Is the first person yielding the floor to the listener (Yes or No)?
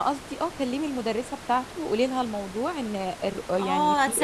Yes